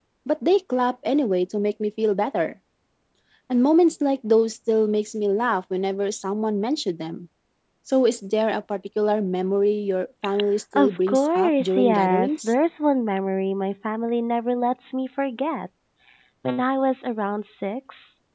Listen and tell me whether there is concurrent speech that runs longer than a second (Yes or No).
Yes